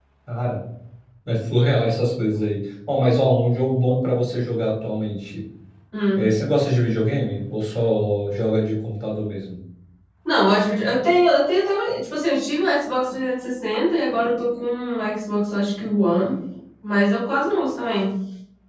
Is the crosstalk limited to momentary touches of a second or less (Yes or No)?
Yes